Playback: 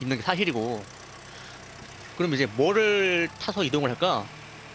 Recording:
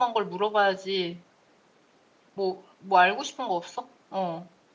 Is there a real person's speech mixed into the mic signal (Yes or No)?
Yes